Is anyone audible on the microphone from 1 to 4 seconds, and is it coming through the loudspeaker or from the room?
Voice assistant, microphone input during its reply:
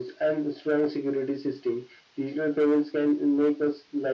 echo only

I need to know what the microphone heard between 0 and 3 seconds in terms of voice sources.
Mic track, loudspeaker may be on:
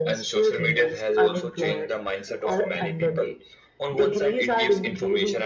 echo only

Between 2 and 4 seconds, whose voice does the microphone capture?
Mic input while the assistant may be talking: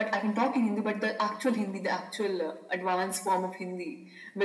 echo only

